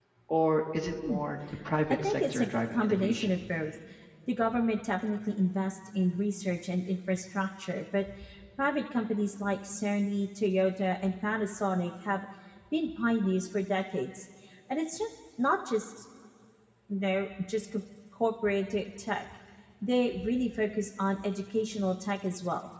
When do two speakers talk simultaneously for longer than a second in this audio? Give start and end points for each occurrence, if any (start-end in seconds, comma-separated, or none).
2.0-3.3